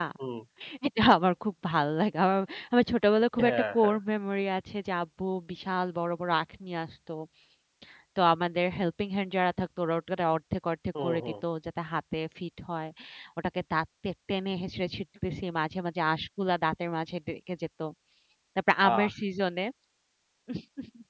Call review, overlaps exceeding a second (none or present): none